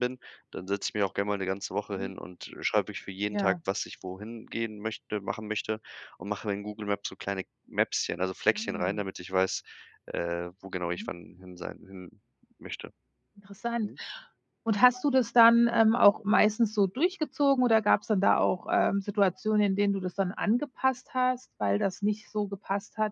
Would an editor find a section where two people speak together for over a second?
No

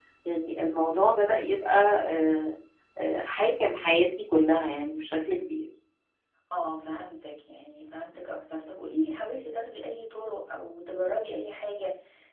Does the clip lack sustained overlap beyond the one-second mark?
Yes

